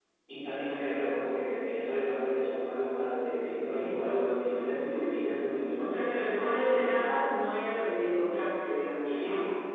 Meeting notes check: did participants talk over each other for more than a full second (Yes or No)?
Yes